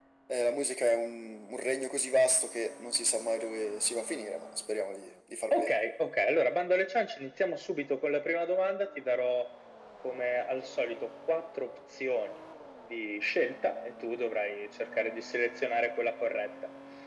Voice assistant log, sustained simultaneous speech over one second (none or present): none